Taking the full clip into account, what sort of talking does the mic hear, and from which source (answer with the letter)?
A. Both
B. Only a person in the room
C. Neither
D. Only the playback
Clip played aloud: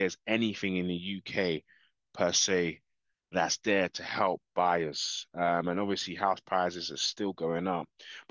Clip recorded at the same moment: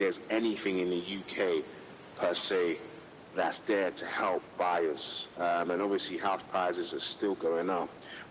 D